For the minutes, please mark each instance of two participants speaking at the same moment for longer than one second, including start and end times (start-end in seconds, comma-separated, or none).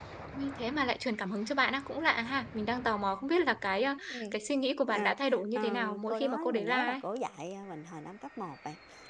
5.5-7.0